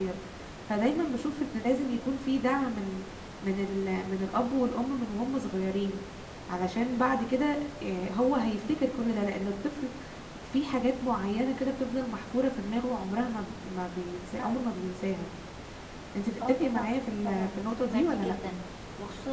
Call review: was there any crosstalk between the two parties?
Yes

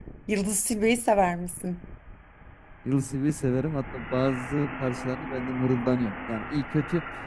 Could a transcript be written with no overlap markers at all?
Yes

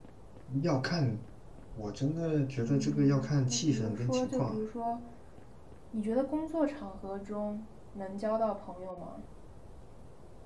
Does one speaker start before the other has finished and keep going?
Yes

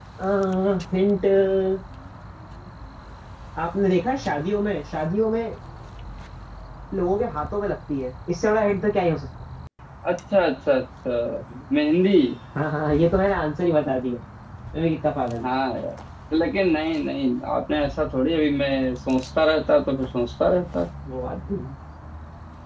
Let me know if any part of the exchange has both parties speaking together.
No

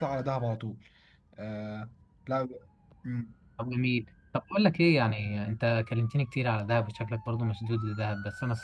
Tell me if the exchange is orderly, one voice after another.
Yes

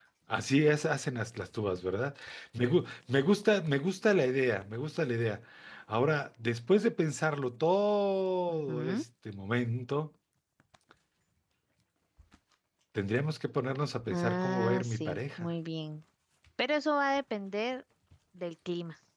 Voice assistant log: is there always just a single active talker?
No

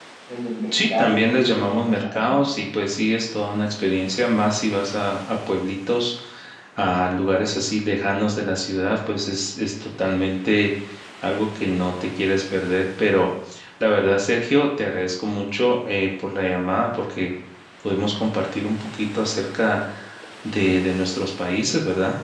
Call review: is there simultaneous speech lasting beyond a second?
Yes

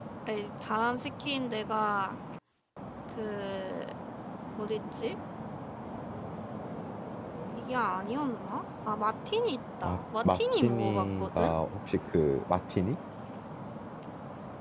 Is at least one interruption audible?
Yes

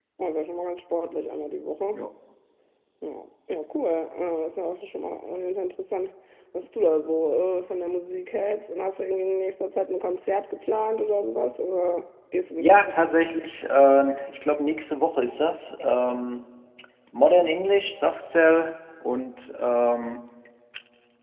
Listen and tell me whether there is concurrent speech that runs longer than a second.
No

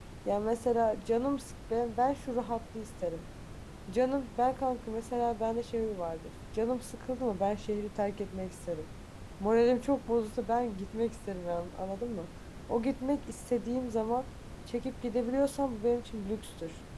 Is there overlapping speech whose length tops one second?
No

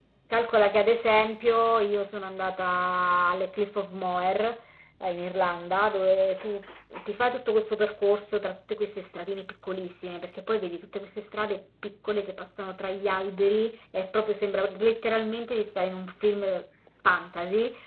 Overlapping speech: No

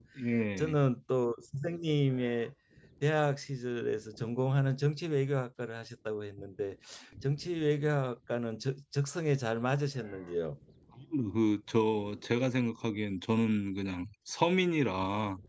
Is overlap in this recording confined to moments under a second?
Yes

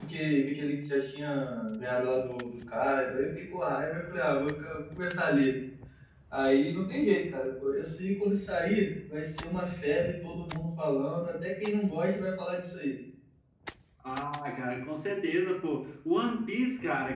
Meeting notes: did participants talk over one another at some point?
No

